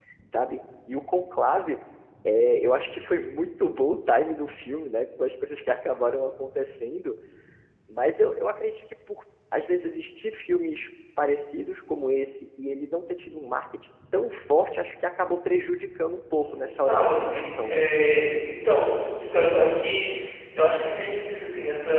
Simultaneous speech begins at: 16.4 s

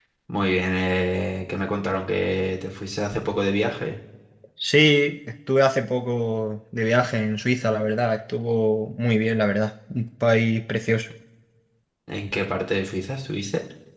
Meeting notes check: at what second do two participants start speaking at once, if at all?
none

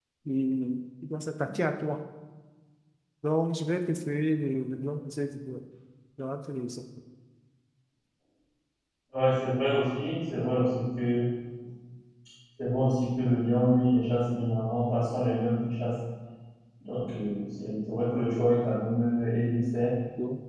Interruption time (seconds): none

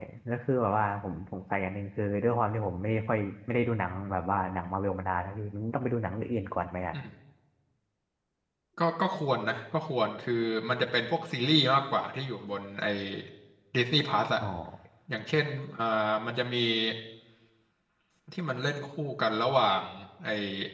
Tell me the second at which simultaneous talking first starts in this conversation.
none

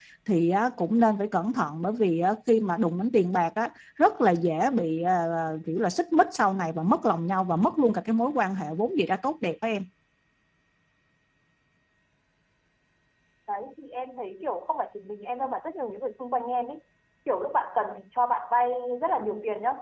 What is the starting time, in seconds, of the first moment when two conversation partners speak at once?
none

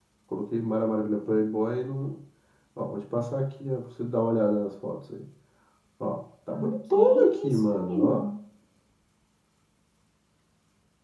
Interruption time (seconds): 6.5 s

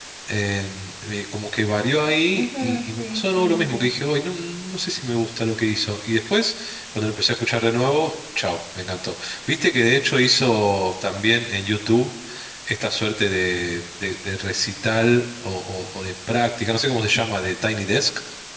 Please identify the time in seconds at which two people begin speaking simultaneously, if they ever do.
2.3 s

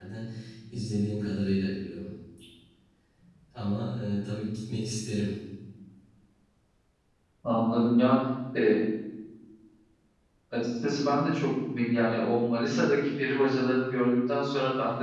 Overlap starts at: none

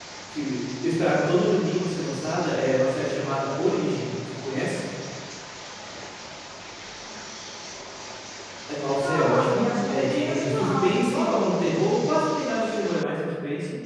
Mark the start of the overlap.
9.0 s

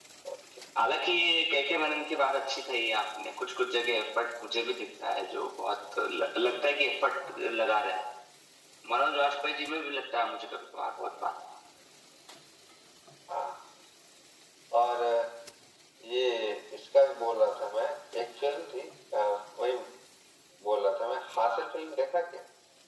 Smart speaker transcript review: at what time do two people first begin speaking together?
none

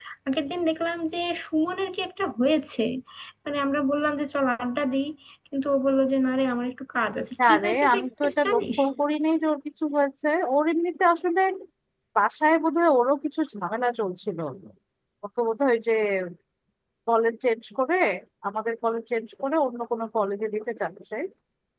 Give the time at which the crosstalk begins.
7.4 s

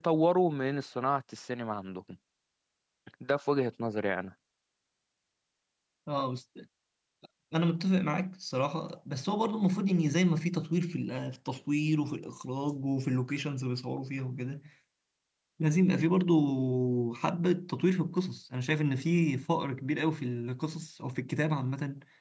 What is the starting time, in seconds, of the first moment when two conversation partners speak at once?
none

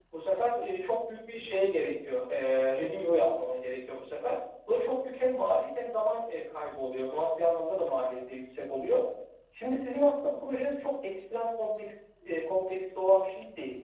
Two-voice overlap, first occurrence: none

